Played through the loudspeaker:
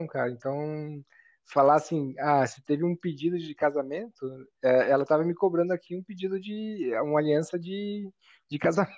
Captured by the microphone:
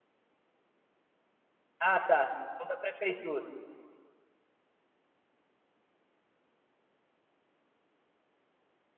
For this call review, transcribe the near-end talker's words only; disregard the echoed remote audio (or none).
Ah, tá. É o da prefeitura.